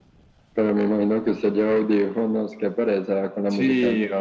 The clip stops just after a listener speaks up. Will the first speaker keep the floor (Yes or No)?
No